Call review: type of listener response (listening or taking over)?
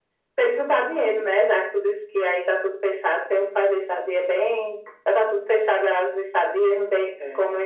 listening